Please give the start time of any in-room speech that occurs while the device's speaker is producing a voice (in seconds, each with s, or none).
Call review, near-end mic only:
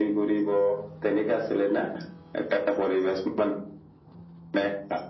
none